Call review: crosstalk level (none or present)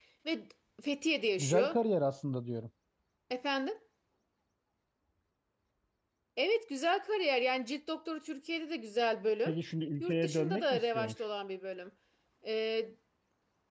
present